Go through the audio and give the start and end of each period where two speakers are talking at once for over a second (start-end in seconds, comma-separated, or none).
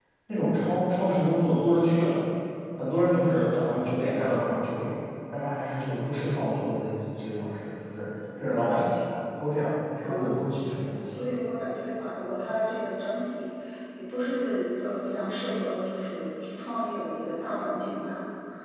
10.0-11.2